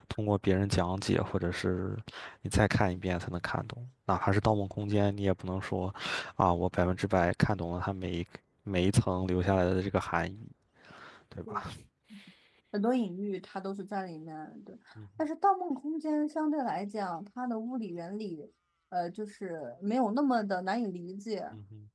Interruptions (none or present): none